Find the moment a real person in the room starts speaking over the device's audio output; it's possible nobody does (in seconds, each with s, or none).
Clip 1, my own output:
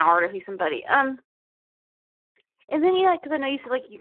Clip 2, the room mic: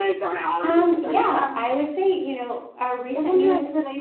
0.6 s